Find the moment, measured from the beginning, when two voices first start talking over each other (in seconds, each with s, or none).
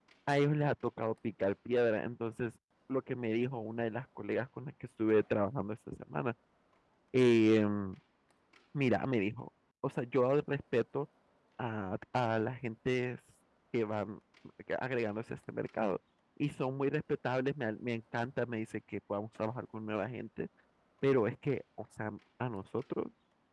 none